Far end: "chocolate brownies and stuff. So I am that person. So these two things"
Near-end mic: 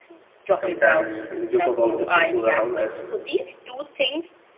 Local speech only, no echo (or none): Sometimes we joke about the people around us.